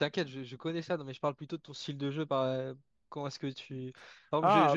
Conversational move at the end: listening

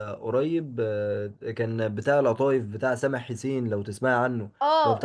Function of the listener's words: taking over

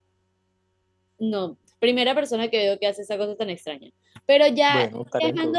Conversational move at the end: listening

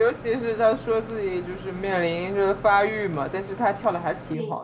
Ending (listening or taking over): taking over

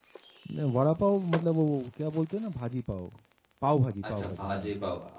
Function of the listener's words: taking over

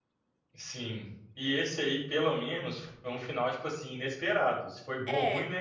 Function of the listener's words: listening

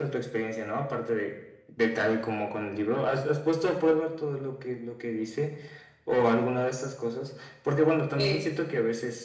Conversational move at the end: listening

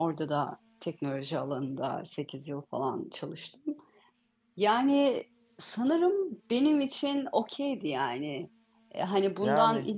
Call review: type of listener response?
listening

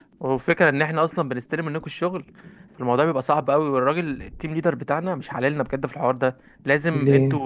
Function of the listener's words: listening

